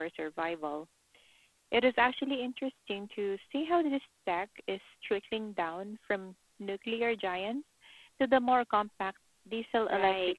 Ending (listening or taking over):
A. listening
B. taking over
B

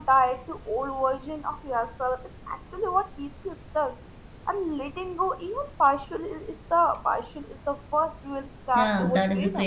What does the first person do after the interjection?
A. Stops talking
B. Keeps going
A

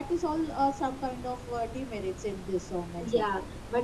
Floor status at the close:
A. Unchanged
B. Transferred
B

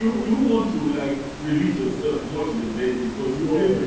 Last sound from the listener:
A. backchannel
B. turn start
A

